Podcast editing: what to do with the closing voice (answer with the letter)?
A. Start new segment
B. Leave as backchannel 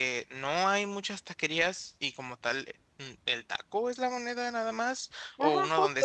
A